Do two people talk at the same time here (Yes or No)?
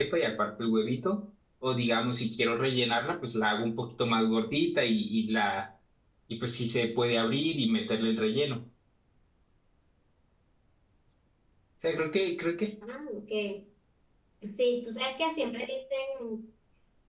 No